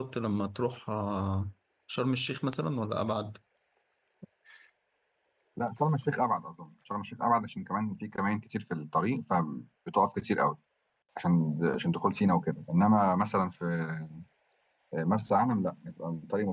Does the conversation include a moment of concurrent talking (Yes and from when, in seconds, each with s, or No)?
No